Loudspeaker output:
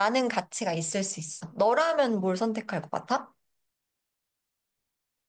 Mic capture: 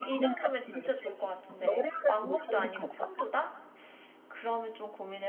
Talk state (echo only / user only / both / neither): both